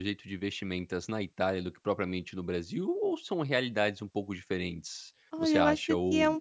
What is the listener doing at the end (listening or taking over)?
taking over